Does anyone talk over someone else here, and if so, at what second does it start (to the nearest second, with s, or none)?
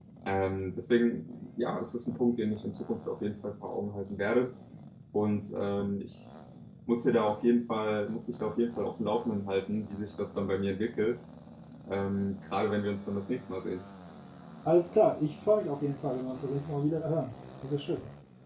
none